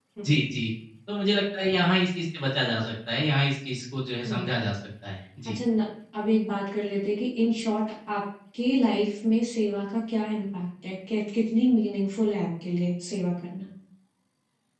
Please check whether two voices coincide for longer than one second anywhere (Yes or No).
No